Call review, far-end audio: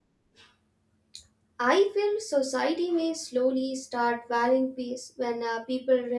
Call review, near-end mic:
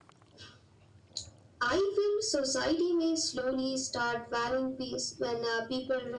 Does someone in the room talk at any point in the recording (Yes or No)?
No